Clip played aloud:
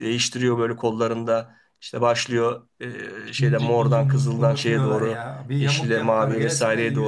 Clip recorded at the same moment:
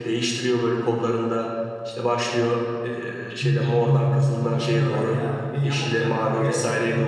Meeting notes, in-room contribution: none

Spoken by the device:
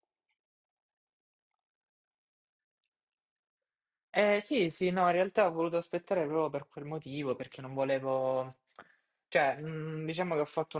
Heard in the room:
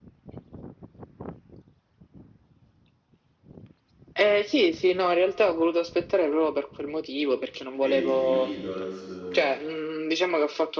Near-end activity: present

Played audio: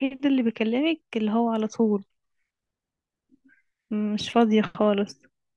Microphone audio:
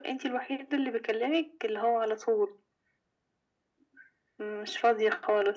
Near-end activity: none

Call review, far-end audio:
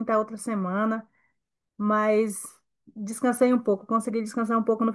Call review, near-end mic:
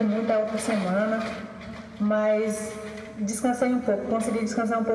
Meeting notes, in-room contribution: none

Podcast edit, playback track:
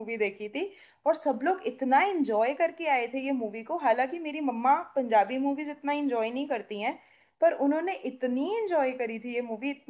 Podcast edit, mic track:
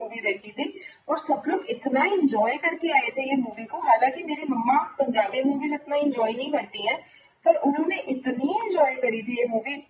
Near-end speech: none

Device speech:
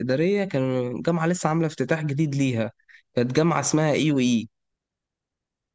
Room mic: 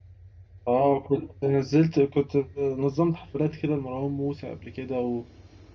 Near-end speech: present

